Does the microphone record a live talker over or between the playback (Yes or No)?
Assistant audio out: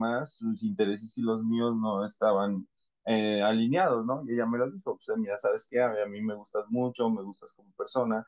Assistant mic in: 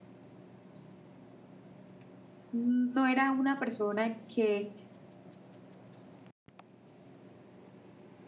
Yes